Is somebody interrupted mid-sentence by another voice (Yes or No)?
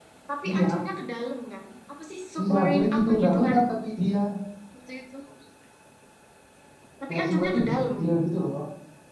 Yes